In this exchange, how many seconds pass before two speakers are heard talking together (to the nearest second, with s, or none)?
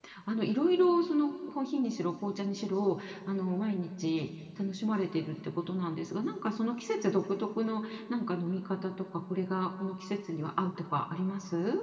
none